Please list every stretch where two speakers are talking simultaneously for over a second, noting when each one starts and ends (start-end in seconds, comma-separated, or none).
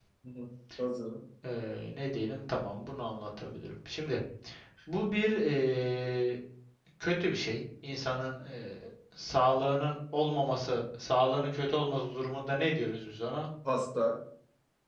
none